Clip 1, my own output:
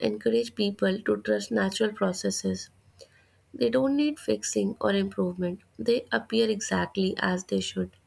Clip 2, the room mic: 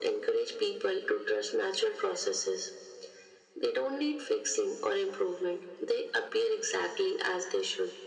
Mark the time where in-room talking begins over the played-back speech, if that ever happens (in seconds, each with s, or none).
none